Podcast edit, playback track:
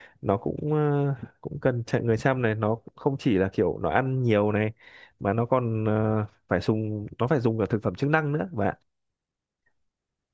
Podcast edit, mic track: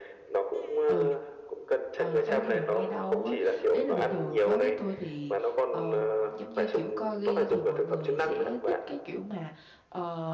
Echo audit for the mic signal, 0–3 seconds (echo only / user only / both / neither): both